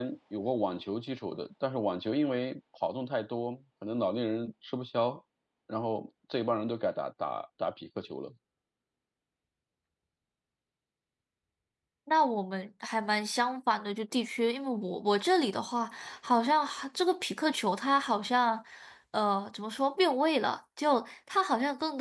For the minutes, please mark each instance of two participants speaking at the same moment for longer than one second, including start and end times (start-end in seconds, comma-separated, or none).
none